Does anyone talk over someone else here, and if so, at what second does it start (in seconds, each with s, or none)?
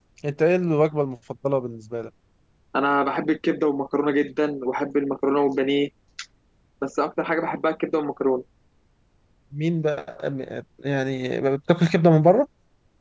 none